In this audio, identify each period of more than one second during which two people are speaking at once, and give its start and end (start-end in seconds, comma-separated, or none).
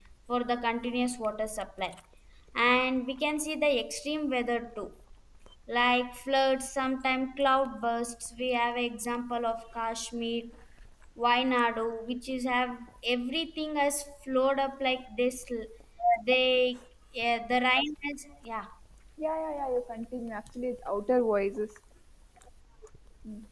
none